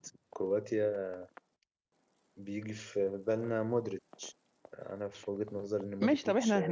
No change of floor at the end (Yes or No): No